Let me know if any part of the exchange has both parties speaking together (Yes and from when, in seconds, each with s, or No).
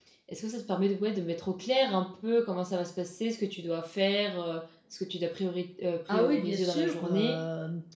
Yes, from 6.1 s